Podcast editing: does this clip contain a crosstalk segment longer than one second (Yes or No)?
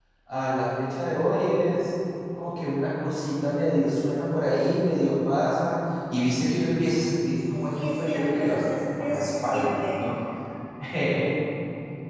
Yes